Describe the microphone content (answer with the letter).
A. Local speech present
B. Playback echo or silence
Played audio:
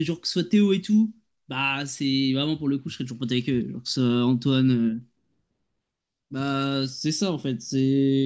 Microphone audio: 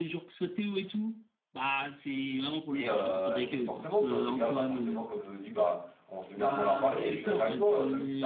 A